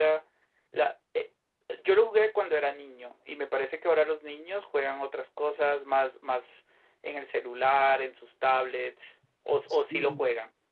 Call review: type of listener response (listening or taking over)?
taking over